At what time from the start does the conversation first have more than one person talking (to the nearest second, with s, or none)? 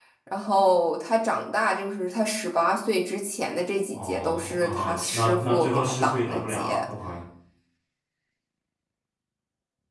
4 s